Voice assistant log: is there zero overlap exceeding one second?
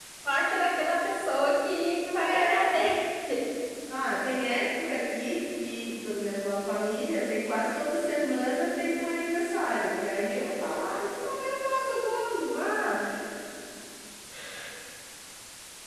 Yes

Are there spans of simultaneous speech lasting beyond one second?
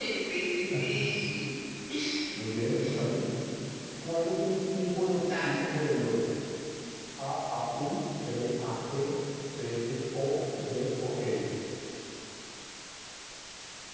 No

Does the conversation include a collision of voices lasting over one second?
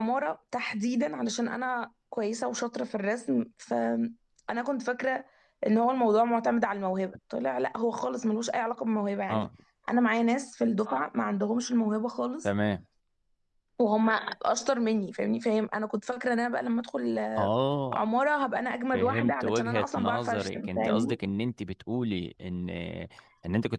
Yes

